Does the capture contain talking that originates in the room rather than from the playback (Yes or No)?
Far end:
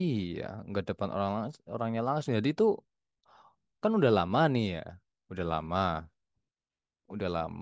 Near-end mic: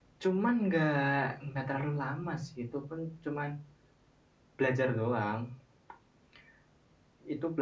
Yes